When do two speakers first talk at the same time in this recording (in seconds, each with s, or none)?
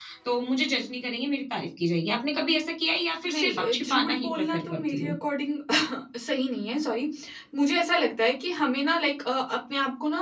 3.2 s